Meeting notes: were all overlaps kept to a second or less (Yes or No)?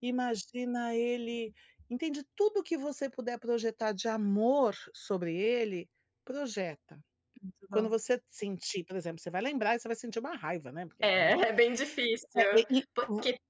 Yes